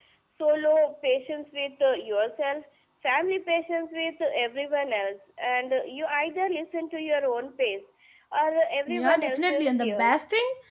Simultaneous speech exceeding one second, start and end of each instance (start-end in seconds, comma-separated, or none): 8.9-10.2